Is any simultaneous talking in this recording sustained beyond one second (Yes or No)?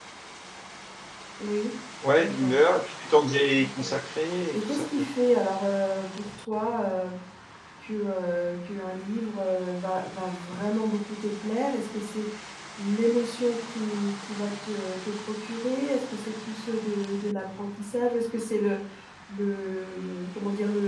No